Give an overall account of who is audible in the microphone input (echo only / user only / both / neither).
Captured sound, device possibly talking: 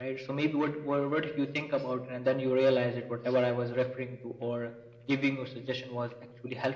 echo only